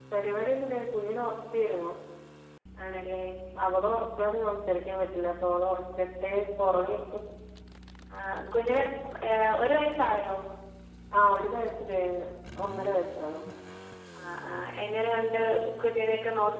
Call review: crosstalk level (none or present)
none